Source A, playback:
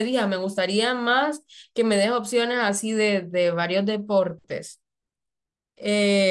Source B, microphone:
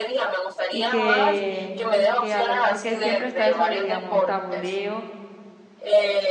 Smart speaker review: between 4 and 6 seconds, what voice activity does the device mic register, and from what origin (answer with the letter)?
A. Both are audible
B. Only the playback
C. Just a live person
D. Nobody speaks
A